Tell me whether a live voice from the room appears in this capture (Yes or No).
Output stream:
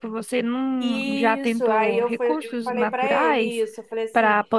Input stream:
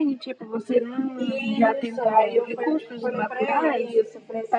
No